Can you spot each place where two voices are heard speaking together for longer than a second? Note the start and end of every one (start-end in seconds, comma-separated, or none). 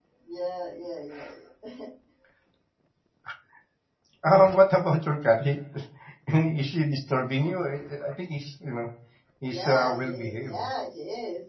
9.4-10.7